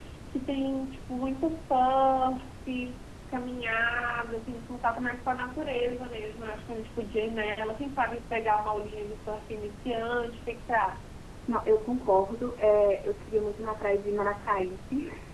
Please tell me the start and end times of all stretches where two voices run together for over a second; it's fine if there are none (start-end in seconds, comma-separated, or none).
none